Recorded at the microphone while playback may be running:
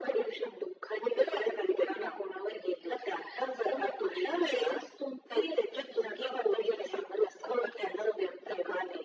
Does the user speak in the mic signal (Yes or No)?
No